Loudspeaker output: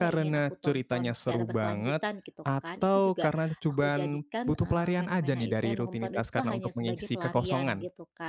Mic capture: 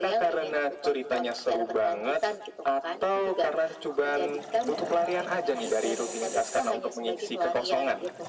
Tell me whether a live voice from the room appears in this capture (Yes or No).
No